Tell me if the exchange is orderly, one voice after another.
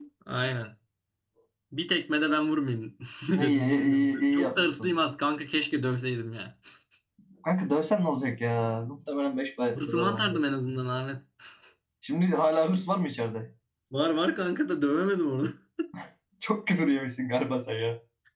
No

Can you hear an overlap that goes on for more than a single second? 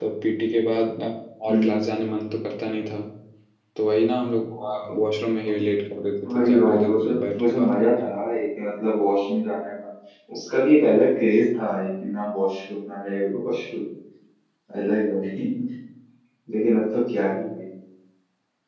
Yes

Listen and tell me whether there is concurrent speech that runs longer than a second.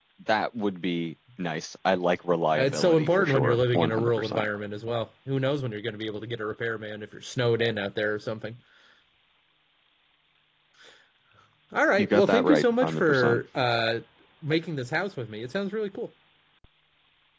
Yes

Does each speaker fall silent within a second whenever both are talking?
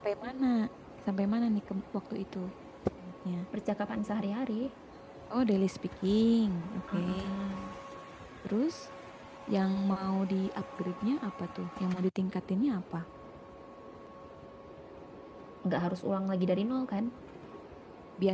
Yes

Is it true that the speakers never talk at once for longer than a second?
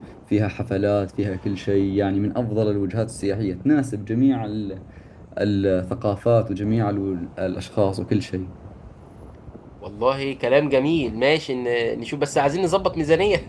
Yes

